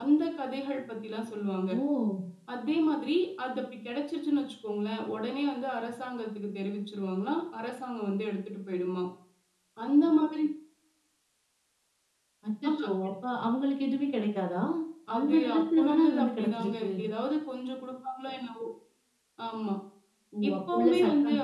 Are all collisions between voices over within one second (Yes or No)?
No